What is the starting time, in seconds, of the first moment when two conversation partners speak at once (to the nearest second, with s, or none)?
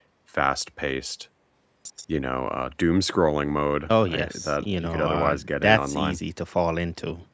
4 s